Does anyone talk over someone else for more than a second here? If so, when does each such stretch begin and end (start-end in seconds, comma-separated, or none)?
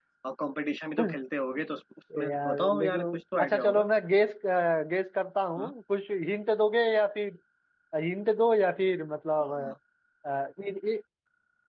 2.2-3.9